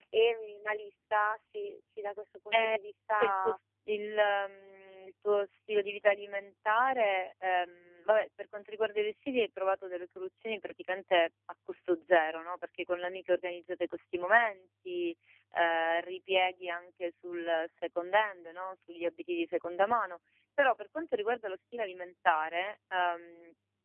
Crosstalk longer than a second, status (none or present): none